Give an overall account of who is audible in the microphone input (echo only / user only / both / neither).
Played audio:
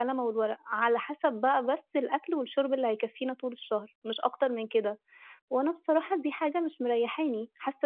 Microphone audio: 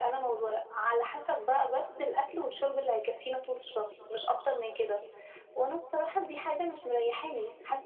echo only